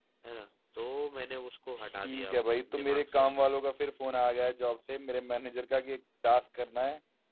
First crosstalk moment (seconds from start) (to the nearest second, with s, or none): 2 s